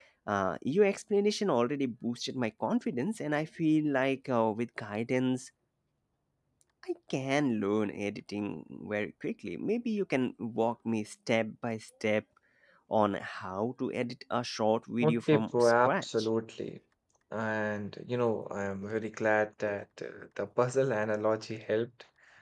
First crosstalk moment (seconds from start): 15.0 s

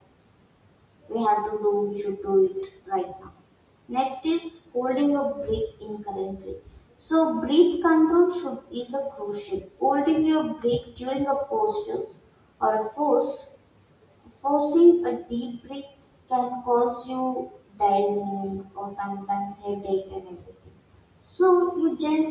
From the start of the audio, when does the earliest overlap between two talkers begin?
none

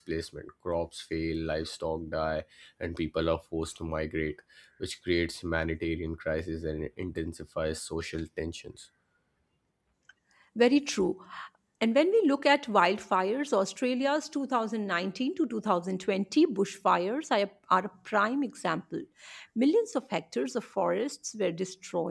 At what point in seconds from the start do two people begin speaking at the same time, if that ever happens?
none

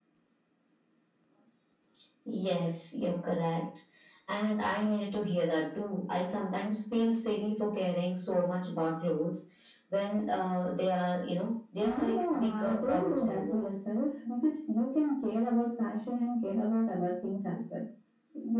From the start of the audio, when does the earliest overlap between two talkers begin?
11.8 s

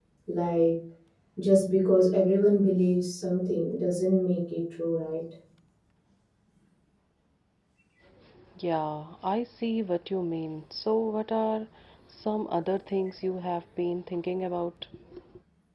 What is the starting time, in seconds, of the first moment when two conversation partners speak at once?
none

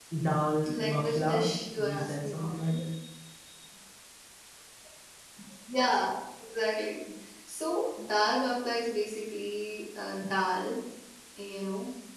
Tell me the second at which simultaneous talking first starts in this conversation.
0.7 s

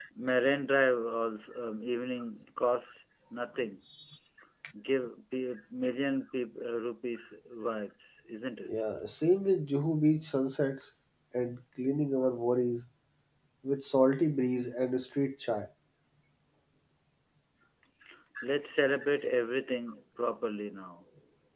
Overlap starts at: none

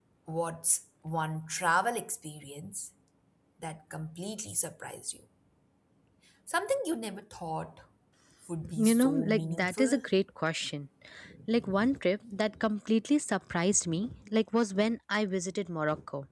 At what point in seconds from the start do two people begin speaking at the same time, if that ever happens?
8.7 s

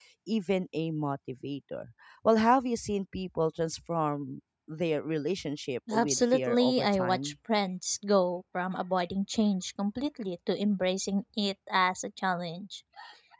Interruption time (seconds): 5.9 s

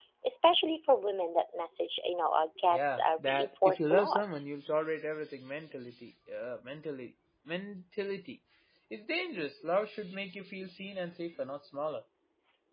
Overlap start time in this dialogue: 2.7 s

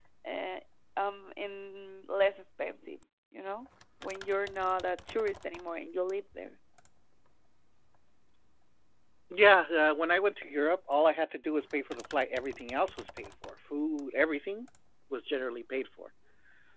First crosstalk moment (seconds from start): none

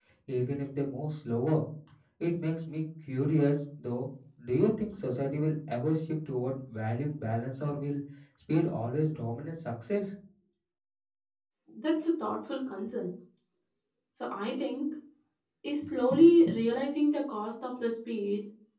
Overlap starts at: none

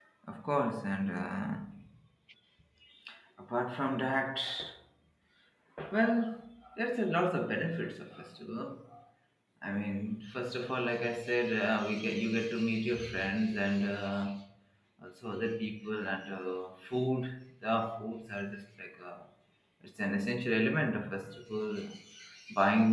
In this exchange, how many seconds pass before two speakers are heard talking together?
none

